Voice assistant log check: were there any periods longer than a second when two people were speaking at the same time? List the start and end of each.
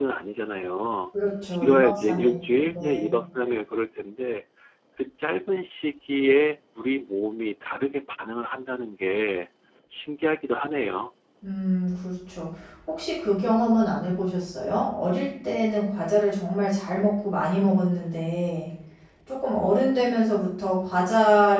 1.5-3.1

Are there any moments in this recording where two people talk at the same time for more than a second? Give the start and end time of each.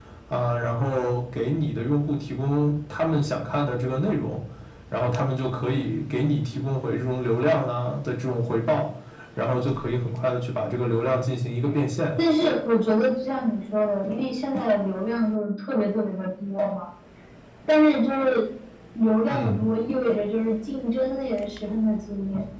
none

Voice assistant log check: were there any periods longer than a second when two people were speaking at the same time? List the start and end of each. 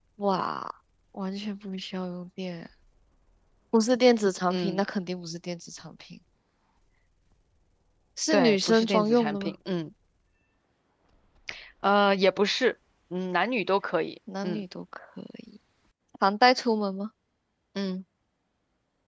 8.3-9.5

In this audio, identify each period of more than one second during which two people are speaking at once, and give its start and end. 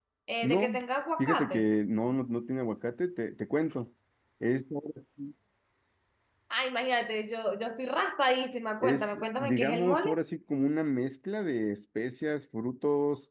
8.8-10.1

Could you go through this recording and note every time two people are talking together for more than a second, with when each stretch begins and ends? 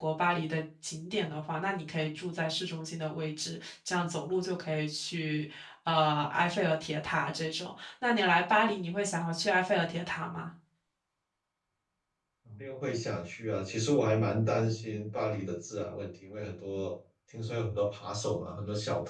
none

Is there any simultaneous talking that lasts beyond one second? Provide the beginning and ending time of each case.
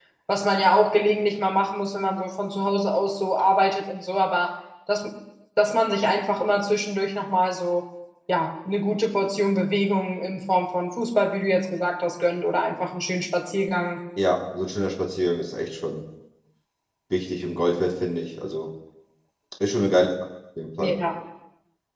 none

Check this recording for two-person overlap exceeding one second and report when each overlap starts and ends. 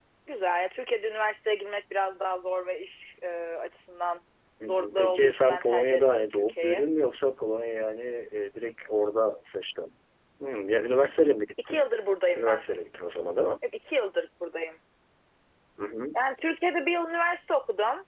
4.7-6.8

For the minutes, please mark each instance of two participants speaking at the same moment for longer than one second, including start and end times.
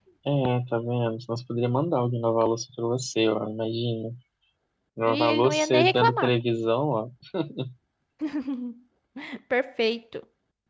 5.1-6.3

